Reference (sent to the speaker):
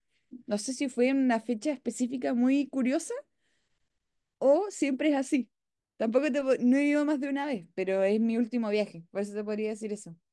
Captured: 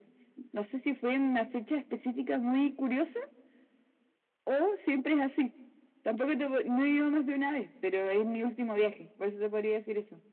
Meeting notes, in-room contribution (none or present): none